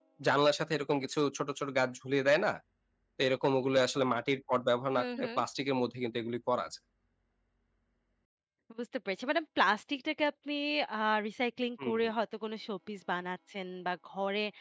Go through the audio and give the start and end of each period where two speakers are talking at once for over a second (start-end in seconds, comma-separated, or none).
none